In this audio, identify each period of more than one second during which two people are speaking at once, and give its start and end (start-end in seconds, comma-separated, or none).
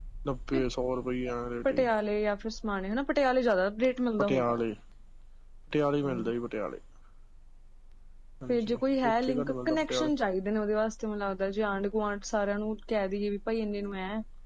8.5-10.1